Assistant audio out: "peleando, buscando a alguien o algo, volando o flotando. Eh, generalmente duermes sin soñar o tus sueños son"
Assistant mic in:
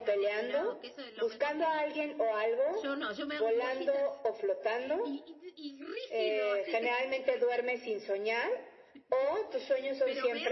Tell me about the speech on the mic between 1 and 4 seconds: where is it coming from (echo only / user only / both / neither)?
both